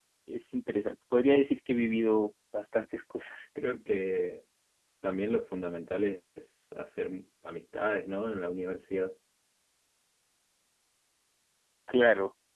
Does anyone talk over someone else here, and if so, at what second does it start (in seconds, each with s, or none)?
none